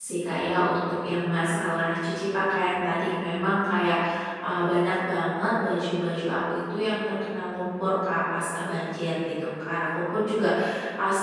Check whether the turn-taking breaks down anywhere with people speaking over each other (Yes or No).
No